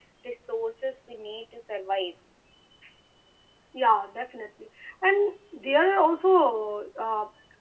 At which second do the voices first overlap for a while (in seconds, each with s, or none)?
none